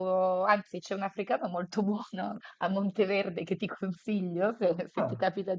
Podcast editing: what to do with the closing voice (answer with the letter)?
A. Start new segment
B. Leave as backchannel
B